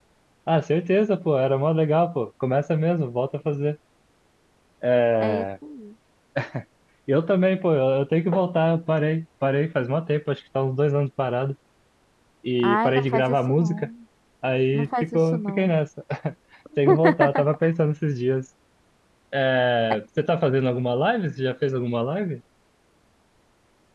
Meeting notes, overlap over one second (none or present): present